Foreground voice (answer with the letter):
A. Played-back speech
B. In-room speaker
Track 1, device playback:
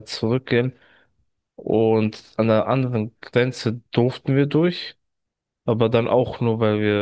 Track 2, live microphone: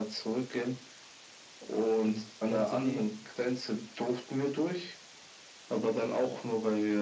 A